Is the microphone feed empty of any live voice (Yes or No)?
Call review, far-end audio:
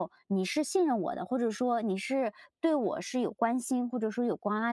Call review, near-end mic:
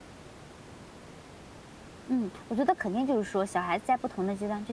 No